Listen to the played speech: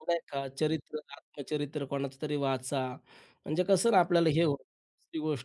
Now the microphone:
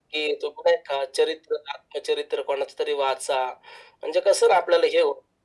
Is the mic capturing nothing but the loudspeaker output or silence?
Yes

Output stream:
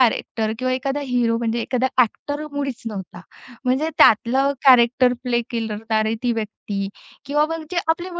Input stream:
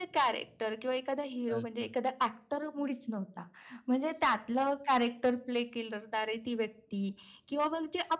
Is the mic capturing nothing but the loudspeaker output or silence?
No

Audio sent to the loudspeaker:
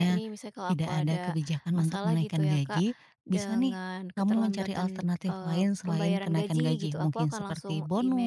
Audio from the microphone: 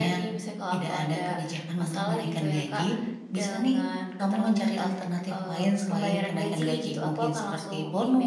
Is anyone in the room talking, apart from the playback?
No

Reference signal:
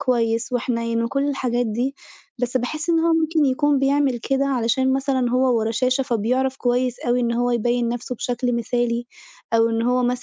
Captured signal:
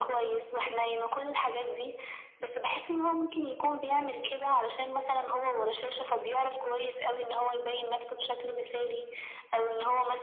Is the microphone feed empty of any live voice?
Yes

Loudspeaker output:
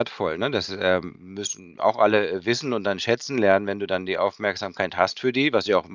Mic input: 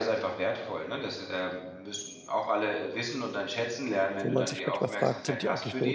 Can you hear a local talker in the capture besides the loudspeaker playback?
Yes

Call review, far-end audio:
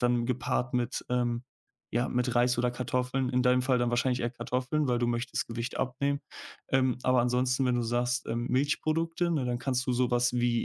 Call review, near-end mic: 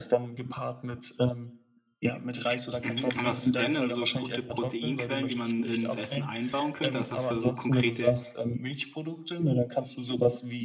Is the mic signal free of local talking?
No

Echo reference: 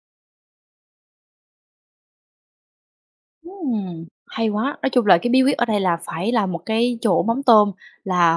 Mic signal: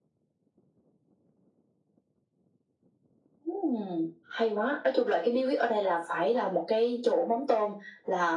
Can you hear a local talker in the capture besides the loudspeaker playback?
No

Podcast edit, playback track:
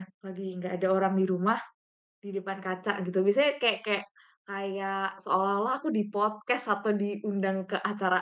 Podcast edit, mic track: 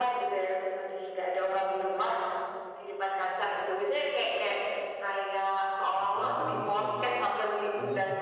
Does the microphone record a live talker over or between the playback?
Yes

